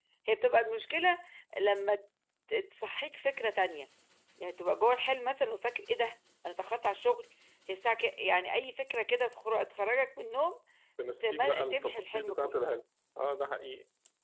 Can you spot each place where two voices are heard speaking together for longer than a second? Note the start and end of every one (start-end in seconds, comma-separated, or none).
11.2-12.5